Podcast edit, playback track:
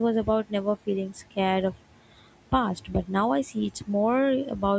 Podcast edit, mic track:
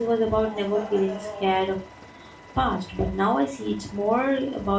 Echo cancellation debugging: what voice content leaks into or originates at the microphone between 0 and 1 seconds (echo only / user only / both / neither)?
both